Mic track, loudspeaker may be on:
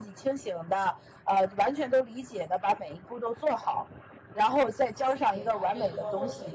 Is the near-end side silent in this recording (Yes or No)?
No